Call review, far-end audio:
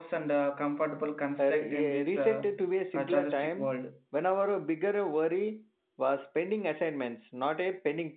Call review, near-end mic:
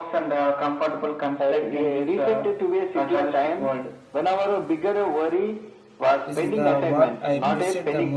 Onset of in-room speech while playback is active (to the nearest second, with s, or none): 6 s